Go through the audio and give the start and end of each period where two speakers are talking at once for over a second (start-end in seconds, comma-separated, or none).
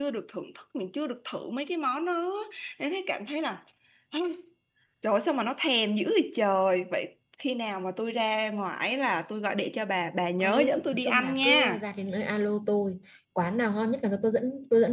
10.4-11.8